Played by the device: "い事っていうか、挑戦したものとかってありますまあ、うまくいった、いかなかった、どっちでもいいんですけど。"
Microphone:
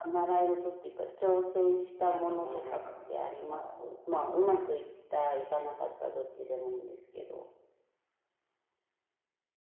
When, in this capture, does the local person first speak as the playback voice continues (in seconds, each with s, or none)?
2.0 s